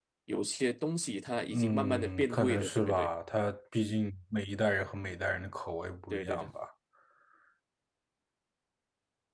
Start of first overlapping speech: 2 s

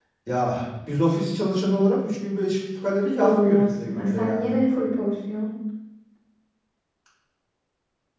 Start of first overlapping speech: 3 s

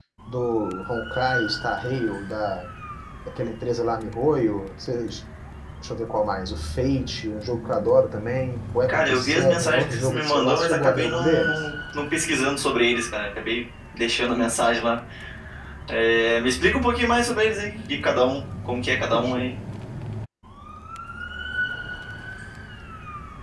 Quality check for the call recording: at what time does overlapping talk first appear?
9 s

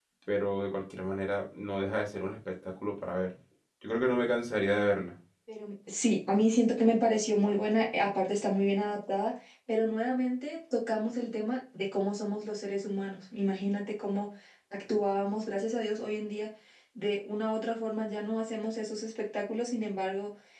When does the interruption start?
none

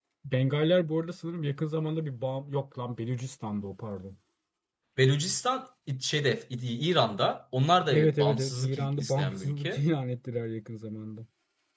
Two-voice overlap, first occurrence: 8 s

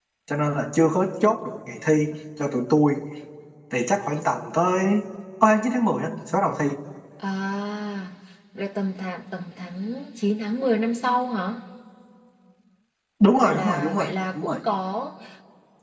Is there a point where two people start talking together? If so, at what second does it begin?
13 s

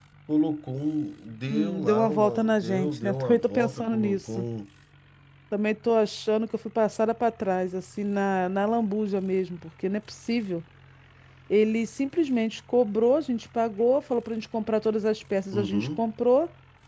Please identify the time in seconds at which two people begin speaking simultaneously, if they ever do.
1 s

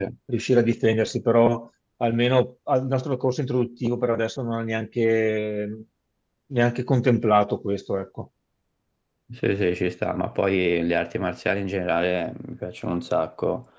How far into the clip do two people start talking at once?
none

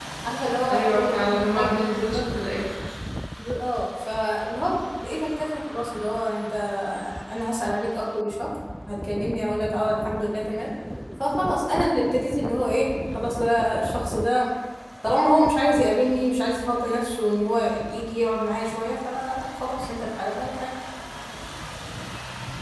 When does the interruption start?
1 s

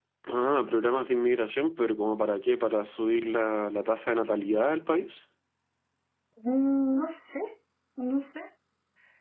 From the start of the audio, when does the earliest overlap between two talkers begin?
none

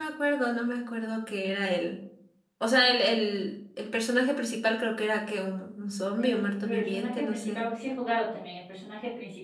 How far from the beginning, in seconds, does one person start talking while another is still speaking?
6 s

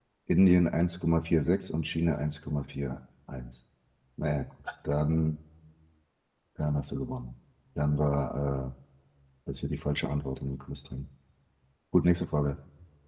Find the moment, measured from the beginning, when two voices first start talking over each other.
none

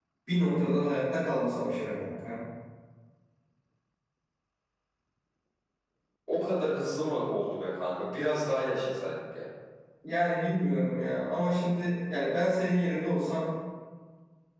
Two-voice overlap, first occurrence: none

